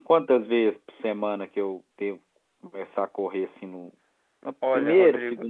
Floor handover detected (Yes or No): Yes